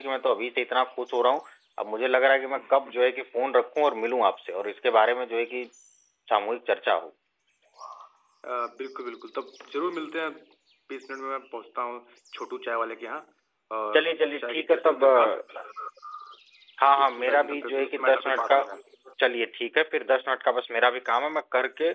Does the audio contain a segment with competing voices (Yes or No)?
Yes